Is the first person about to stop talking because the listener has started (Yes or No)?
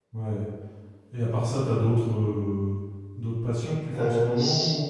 Yes